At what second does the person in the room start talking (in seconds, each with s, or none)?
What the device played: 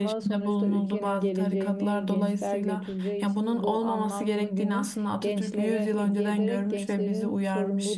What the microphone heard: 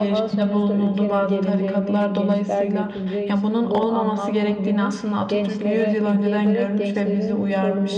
none